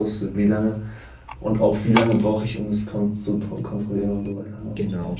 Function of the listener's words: taking over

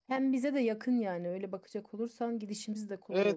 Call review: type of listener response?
taking over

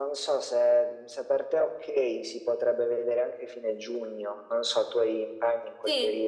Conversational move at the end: taking over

